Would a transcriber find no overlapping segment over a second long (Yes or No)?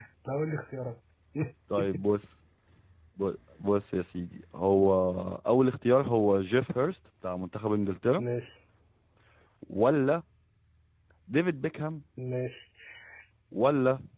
Yes